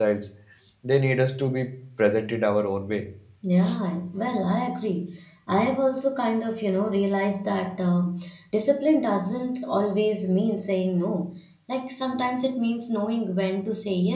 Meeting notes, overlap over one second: none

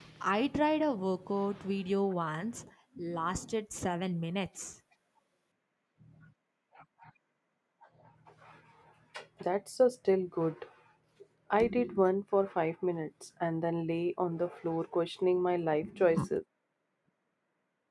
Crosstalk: none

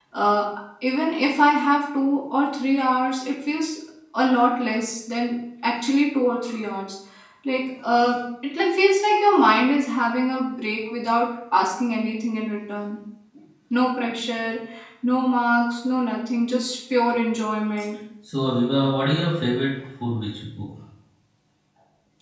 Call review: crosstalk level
none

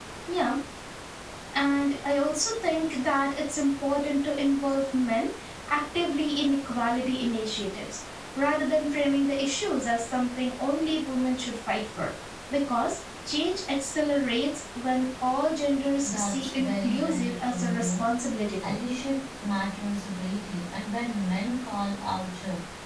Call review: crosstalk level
present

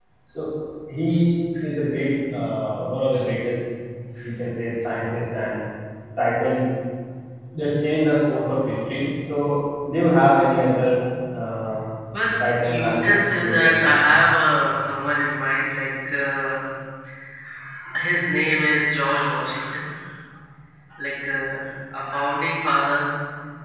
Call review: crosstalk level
present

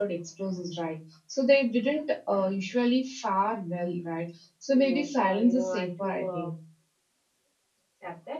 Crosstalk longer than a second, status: present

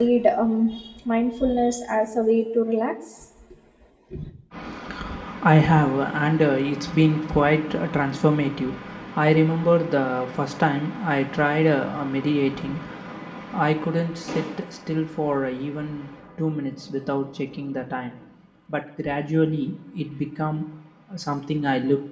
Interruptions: none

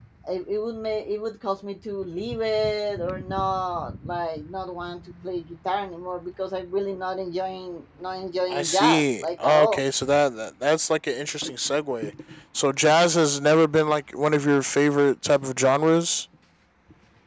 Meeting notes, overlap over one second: present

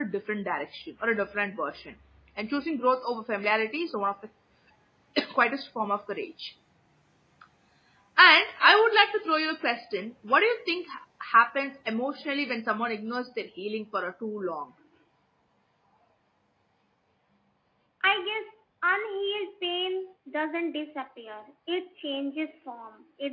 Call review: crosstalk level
none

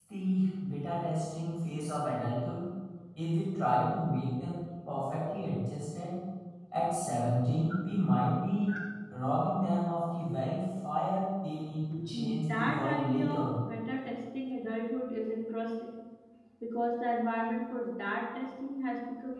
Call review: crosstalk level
present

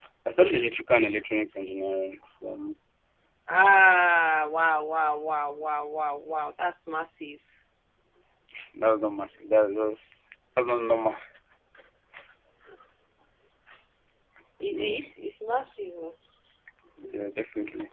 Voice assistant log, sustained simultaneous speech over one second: none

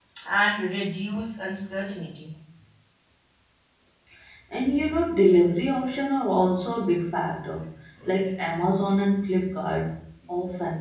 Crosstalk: none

